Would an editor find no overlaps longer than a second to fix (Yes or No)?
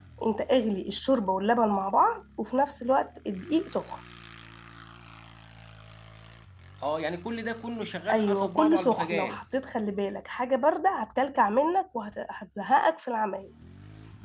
No